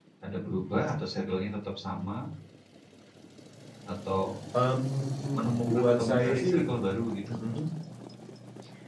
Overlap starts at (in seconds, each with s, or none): 5.3 s